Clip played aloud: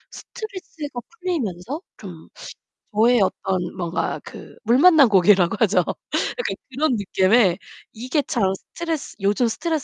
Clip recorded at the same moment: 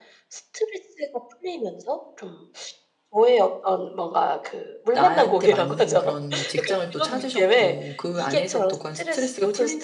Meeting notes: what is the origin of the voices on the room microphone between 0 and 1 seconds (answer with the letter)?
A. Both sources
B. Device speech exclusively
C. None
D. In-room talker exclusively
B